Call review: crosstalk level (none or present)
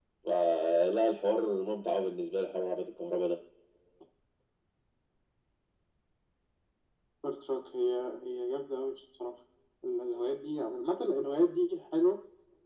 none